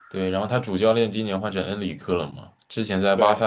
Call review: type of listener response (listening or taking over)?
listening